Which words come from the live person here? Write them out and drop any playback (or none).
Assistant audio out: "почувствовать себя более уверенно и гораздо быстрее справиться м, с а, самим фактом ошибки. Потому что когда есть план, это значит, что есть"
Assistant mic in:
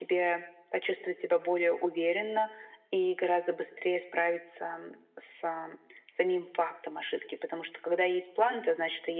none